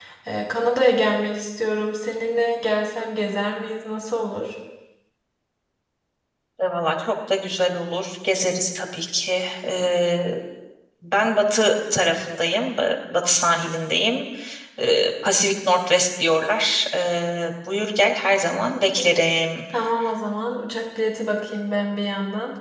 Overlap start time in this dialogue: none

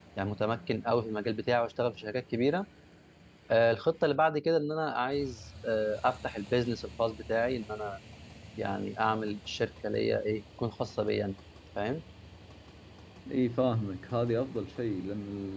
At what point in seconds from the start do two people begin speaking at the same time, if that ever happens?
none

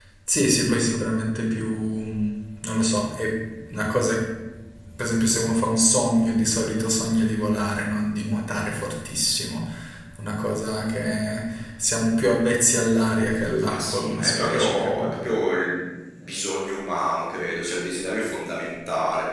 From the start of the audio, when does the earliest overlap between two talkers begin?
14 s

